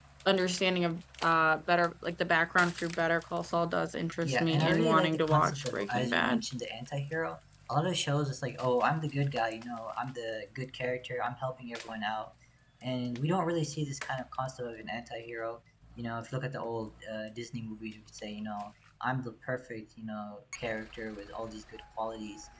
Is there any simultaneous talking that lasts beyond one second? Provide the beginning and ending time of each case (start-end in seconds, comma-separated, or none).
4.2-6.4